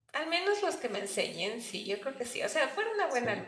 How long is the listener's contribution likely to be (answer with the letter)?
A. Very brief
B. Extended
A